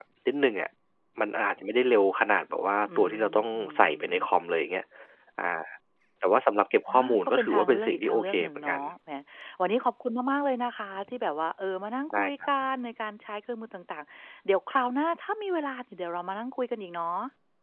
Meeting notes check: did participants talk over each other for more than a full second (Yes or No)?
Yes